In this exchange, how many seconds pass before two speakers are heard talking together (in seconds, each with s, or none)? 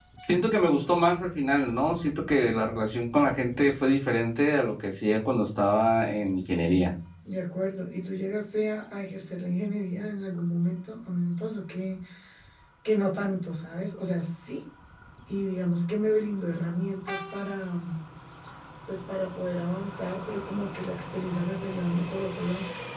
none